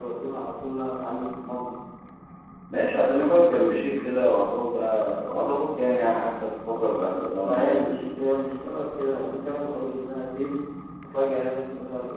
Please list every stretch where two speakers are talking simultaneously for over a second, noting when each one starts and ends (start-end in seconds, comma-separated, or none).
none